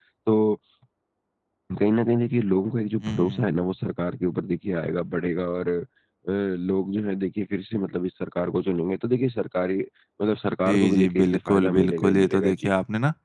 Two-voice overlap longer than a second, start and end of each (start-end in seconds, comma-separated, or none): 10.7-12.7